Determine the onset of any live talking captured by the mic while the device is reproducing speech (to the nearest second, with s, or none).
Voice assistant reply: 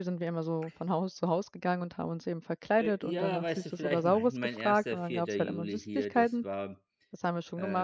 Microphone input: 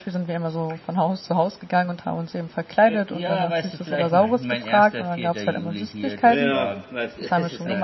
6 s